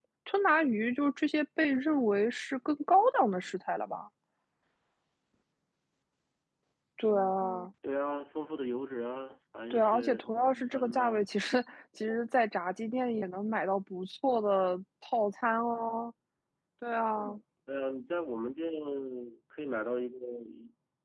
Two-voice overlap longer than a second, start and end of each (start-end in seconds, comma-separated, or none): 9.7-11.3